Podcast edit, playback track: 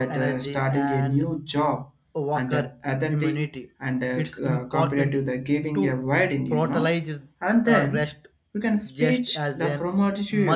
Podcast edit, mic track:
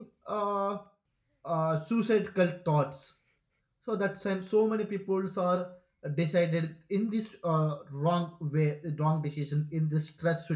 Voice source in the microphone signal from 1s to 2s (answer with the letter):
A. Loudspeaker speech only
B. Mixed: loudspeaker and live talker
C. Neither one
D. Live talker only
D